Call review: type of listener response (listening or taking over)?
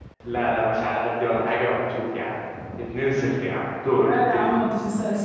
taking over